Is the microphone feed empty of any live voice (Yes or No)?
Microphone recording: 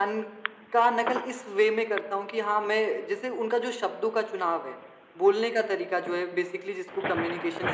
Yes